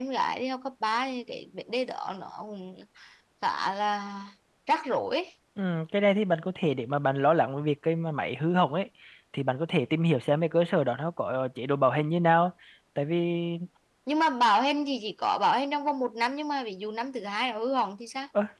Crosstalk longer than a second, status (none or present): none